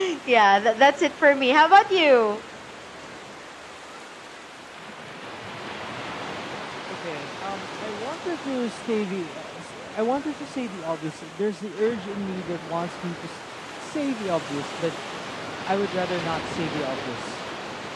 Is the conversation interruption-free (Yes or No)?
Yes